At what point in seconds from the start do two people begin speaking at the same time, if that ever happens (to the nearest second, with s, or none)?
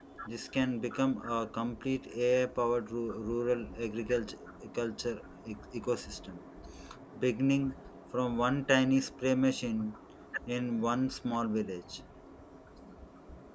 none